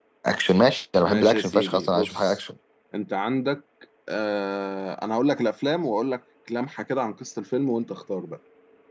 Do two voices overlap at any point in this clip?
Yes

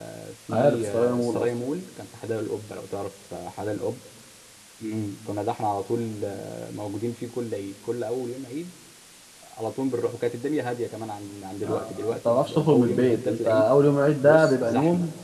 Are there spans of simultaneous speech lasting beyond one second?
Yes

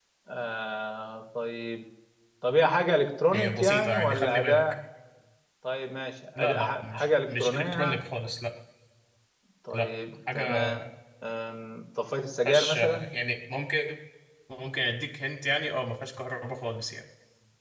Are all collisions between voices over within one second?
No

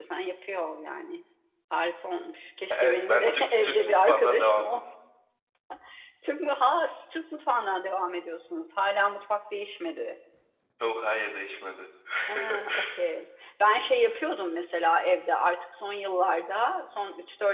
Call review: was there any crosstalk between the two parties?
Yes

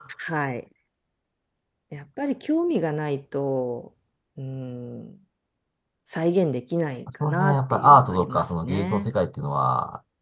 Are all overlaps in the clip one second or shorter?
No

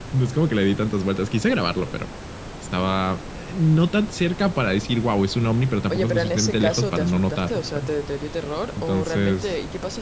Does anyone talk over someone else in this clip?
Yes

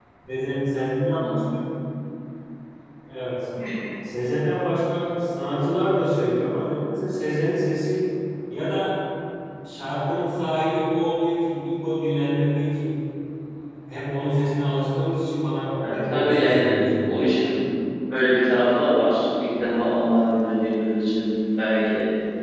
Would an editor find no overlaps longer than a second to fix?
No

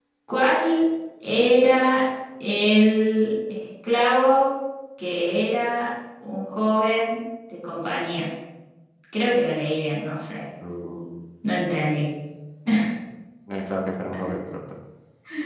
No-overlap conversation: Yes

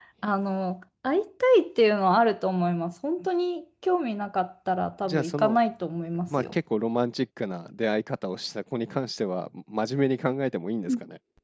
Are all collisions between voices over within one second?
Yes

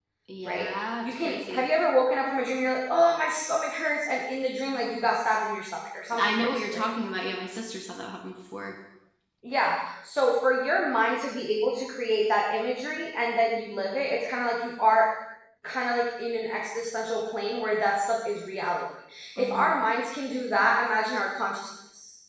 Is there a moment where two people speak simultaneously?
Yes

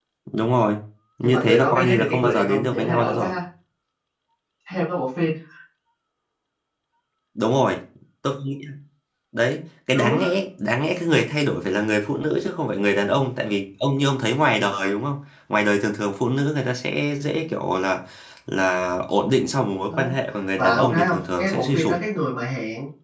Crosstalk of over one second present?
Yes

